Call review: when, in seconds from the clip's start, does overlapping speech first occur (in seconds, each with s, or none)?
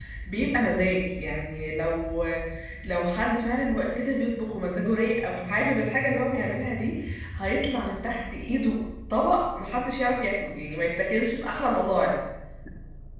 none